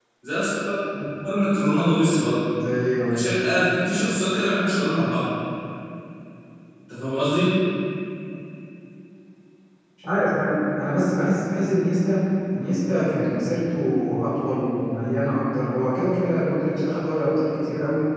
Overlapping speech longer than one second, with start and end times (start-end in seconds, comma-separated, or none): none